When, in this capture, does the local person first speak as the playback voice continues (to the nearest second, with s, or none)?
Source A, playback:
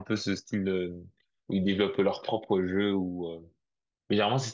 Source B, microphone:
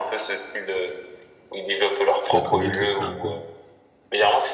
2 s